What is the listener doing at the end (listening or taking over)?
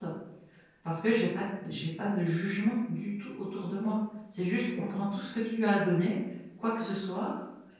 listening